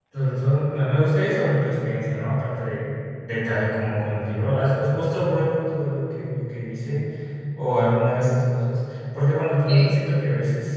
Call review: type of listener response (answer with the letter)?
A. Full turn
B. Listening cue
B